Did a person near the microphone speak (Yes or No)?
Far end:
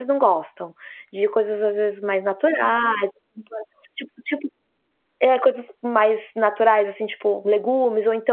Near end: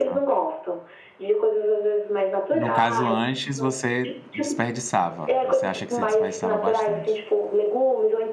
Yes